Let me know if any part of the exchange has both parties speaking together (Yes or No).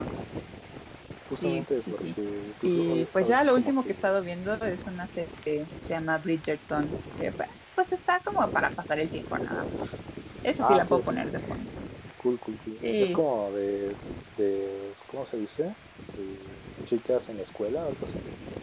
Yes